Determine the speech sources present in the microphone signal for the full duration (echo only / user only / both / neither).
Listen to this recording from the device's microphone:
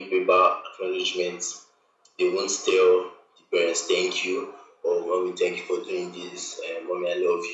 echo only